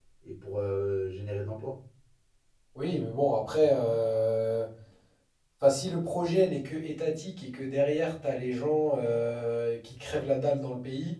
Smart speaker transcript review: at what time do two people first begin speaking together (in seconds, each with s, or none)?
none